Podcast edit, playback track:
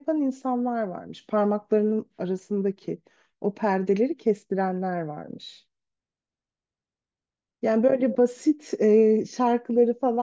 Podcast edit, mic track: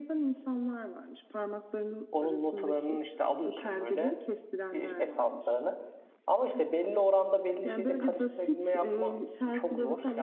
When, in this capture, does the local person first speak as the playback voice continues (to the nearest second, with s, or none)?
2 s